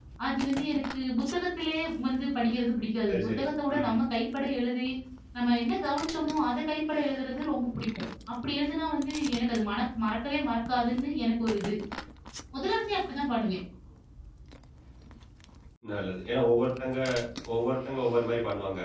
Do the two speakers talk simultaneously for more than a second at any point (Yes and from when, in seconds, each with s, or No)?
No